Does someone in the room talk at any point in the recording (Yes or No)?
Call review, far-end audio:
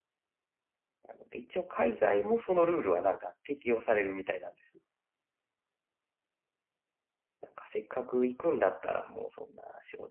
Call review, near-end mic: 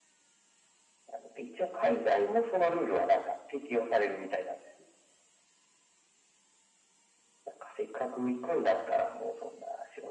No